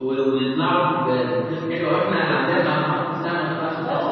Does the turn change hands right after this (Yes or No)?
Yes